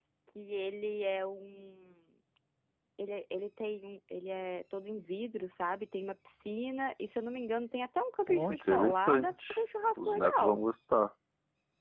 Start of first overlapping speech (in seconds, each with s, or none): 8.3 s